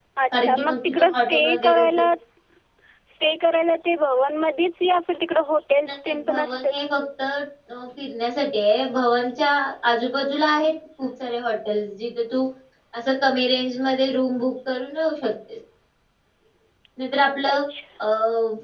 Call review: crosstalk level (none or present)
present